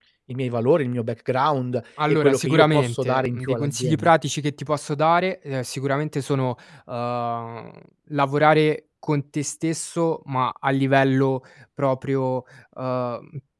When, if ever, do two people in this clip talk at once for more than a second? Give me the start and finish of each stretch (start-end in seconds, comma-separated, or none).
2.1-4.1